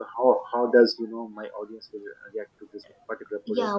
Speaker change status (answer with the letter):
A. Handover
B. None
A